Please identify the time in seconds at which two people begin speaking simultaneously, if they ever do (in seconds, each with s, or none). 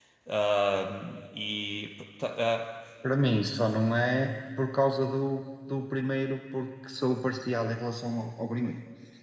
none